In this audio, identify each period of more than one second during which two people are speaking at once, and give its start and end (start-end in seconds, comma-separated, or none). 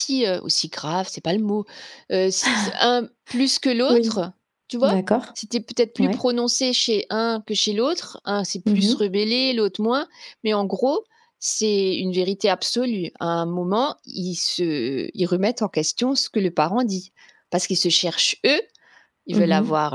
none